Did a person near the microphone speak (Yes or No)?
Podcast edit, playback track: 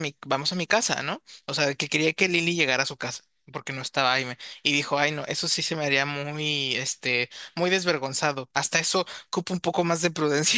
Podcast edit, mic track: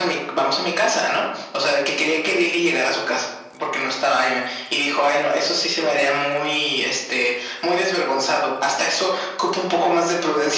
No